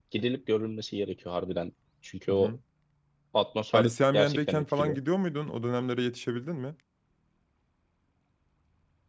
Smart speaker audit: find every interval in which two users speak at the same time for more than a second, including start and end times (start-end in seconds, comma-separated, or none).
3.7-5.0